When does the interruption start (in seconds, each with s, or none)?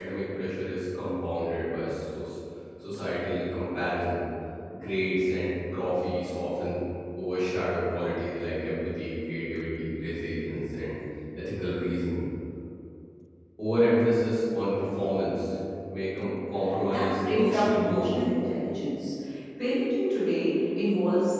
16.8 s